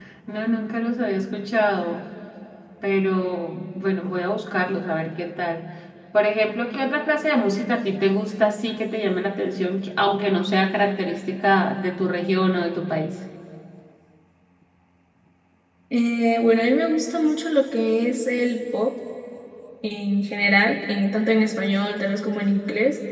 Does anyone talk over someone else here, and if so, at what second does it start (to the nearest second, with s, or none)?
none